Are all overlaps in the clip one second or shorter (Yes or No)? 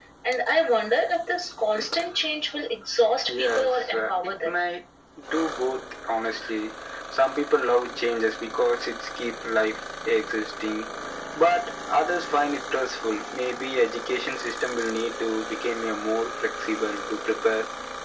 No